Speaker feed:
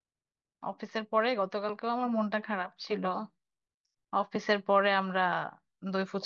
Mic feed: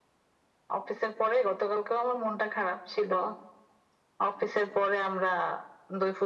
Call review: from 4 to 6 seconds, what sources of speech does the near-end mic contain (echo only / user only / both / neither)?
echo only